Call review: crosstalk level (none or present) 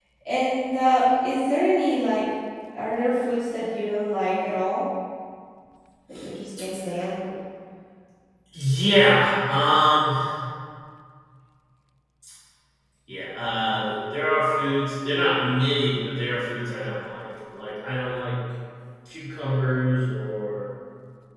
none